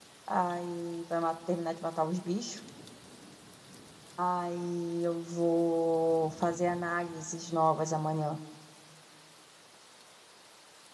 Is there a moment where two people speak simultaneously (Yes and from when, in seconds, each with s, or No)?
No